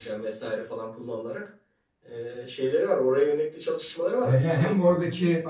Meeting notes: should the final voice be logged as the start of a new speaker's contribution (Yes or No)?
Yes